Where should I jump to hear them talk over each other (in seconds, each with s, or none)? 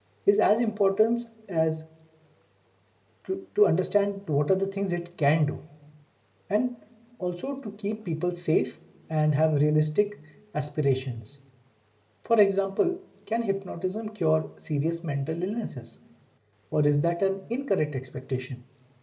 none